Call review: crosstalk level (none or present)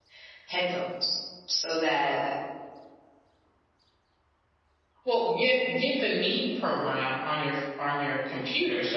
none